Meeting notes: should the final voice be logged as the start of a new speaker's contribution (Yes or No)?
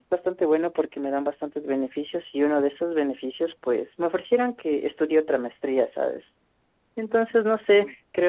No